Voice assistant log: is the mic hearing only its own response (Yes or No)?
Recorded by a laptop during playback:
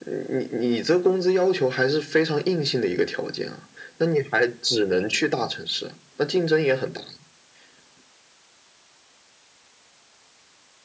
Yes